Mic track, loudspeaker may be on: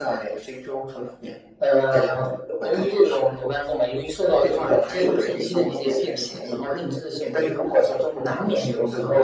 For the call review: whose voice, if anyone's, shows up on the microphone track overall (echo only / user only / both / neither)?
echo only